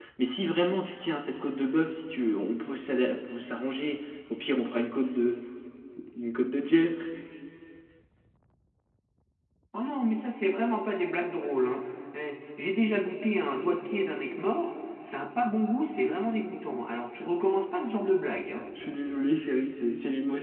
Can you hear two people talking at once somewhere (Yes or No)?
No